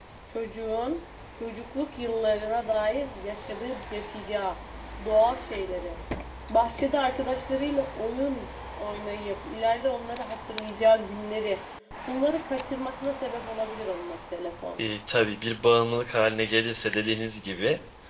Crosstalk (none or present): none